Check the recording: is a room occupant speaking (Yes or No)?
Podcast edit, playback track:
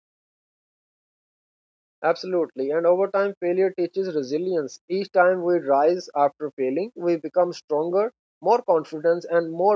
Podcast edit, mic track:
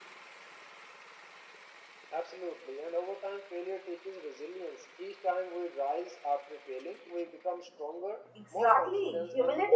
Yes